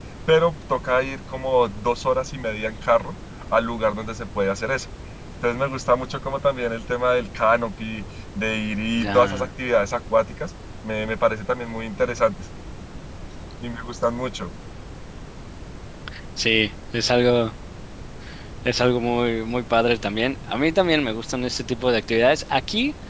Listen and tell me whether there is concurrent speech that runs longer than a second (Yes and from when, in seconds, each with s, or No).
No